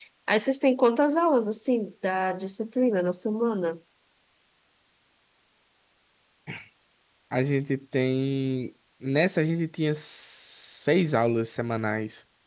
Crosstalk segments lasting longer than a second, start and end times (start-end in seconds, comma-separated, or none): none